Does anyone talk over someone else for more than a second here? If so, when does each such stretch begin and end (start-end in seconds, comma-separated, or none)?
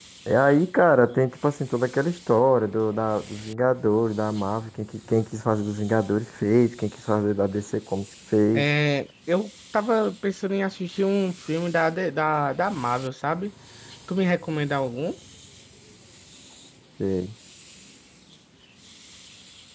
none